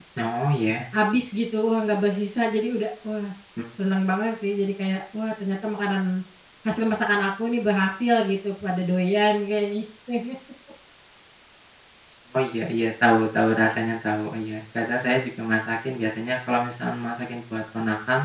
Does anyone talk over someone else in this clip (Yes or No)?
No